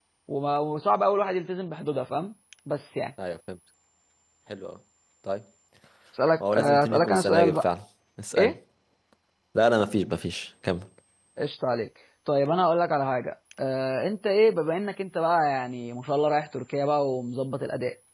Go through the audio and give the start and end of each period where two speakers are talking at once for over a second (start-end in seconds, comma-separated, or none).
6.4-7.7